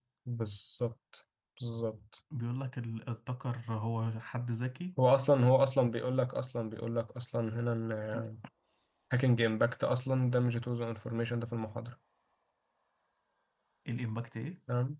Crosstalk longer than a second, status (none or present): none